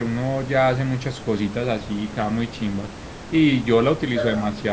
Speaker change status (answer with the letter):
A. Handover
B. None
B